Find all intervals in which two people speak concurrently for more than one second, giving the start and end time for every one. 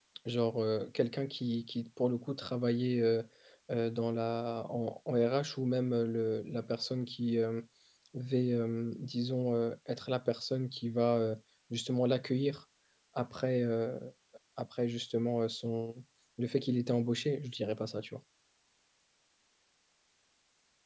none

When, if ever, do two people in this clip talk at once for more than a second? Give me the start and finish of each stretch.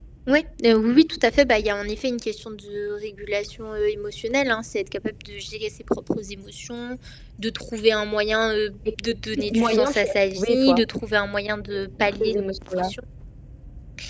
9.4-10.8

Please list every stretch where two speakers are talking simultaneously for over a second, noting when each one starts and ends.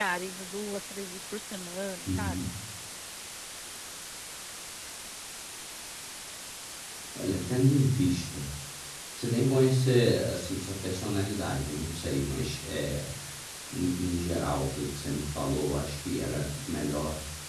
none

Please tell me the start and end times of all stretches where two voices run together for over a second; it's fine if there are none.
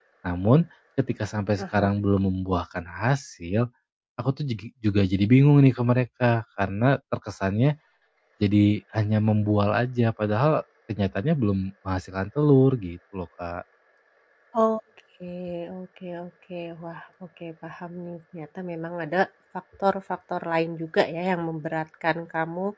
none

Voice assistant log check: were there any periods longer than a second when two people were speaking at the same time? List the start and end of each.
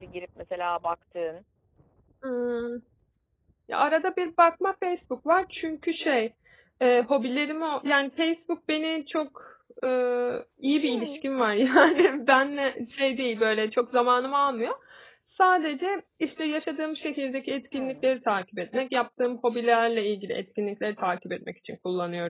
none

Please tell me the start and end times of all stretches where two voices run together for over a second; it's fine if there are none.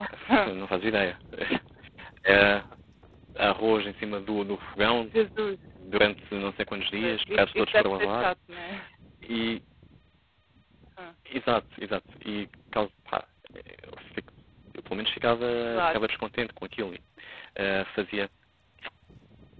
7.0-8.3

